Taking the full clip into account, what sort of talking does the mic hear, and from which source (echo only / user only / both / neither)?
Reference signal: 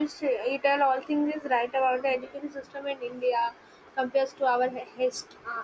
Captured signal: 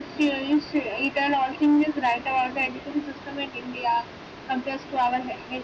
echo only